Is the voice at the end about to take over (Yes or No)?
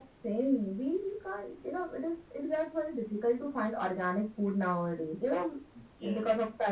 No